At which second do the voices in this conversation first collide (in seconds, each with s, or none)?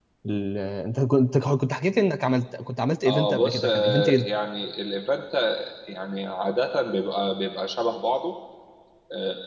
3.0 s